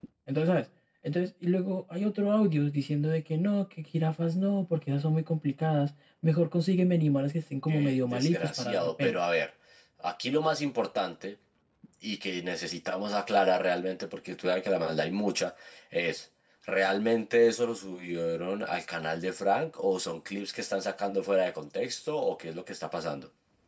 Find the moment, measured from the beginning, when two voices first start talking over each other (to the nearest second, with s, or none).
8 s